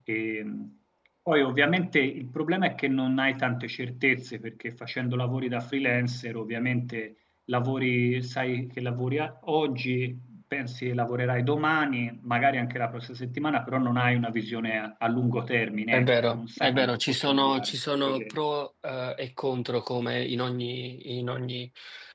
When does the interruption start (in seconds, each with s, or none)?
15.9 s